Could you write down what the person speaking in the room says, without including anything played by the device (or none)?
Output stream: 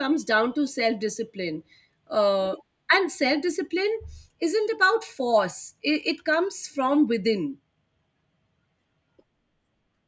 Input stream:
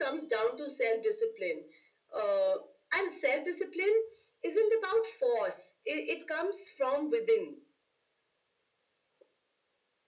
none